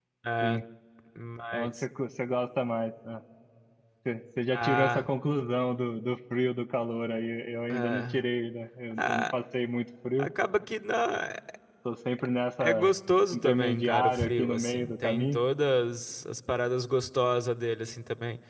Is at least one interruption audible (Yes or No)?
Yes